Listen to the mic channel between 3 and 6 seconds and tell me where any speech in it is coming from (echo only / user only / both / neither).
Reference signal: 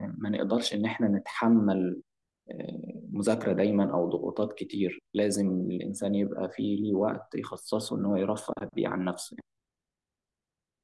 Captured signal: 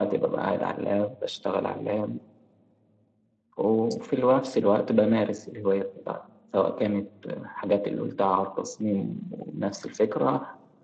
user only